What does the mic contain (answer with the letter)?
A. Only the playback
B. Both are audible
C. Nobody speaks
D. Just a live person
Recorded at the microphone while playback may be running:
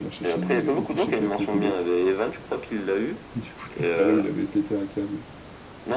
B